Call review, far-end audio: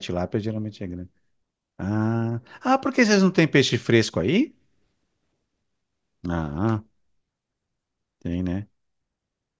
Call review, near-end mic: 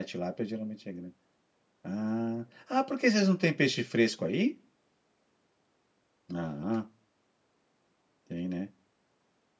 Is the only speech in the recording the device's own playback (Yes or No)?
Yes